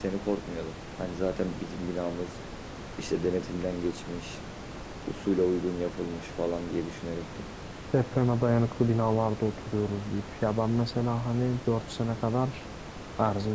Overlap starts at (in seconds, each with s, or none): none